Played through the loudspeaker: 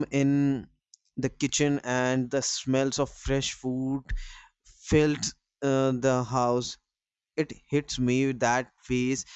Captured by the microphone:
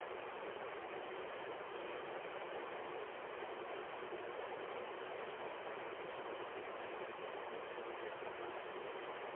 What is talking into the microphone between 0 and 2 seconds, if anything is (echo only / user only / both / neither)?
neither